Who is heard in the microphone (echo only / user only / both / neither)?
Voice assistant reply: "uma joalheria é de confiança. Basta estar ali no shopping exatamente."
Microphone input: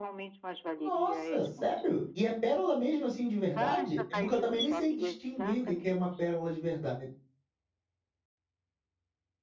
both